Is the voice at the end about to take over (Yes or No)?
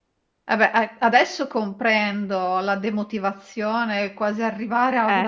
No